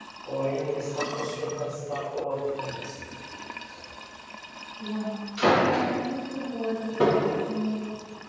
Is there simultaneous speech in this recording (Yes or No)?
No